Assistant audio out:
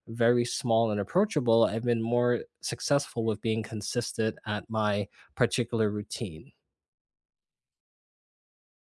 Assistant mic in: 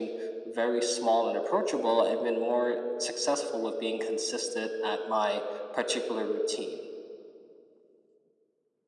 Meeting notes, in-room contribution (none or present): none